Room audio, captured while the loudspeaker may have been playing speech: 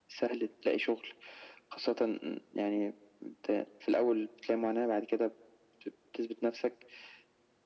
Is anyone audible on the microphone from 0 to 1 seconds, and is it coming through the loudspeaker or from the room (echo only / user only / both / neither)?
echo only